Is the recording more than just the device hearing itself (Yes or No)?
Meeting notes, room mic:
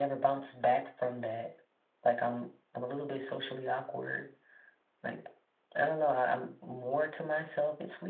No